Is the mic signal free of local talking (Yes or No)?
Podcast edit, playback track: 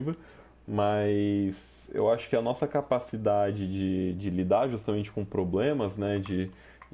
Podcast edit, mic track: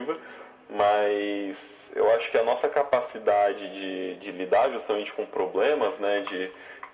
Yes